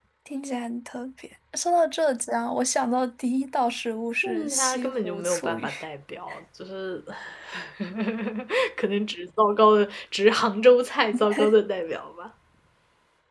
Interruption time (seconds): 4.2 s

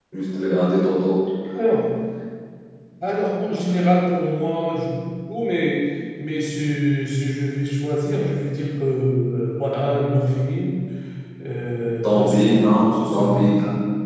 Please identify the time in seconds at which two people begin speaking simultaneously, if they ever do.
12.0 s

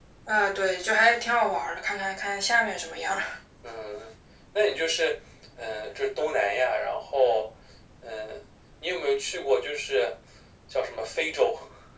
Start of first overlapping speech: none

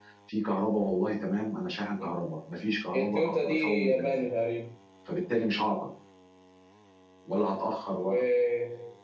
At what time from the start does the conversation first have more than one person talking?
2.9 s

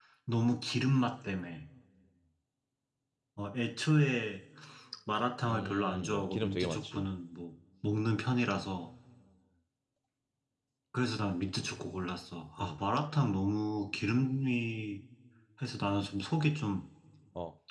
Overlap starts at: 5.5 s

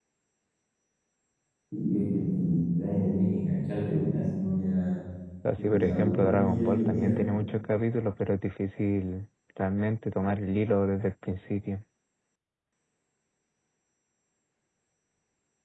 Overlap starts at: 5.7 s

